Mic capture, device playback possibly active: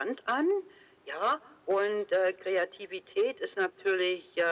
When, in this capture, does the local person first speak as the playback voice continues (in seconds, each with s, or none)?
none